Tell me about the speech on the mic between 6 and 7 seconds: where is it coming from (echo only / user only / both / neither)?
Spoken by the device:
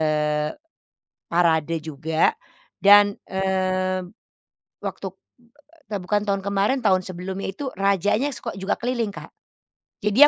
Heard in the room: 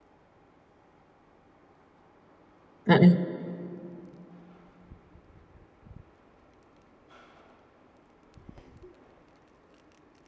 neither